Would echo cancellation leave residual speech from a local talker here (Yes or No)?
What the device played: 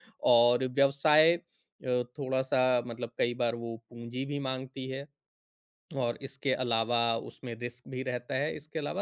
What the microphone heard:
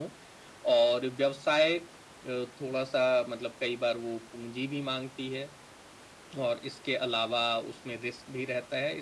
No